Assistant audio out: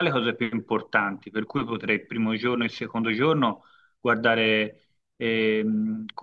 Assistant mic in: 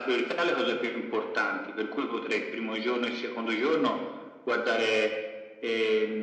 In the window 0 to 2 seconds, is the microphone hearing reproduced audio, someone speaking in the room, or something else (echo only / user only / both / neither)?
echo only